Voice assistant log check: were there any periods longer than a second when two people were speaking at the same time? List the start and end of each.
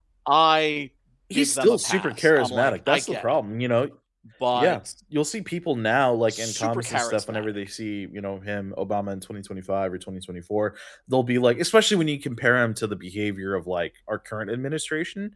1.3-3.4, 6.3-7.5

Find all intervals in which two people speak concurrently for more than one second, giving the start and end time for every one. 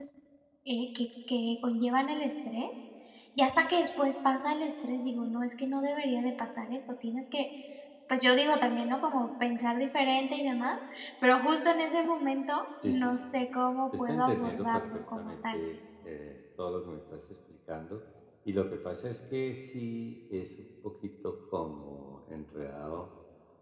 14.0-15.6

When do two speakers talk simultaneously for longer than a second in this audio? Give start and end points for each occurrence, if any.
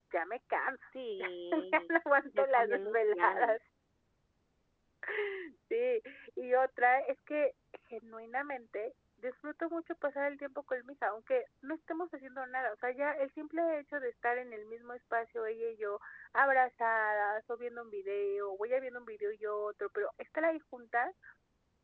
2.3-3.6

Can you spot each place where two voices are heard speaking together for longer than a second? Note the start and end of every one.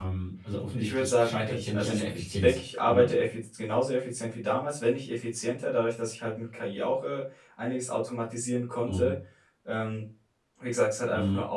0.7-3.1

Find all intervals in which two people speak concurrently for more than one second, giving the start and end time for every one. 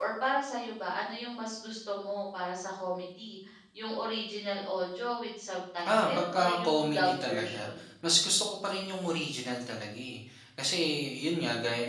5.9-7.8

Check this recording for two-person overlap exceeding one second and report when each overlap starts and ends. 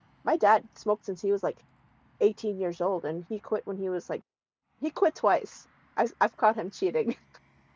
none

